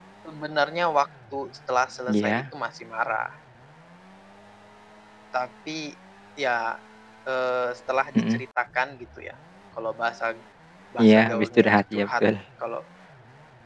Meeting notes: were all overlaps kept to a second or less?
No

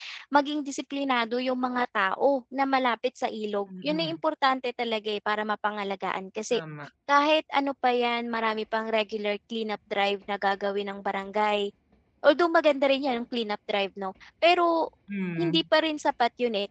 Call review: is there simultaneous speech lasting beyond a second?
No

